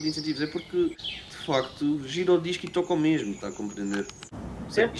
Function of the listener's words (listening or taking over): taking over